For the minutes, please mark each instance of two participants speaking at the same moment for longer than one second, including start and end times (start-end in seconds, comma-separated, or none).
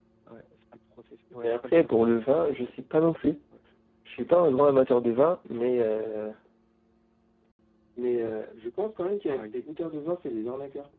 1.4-2.7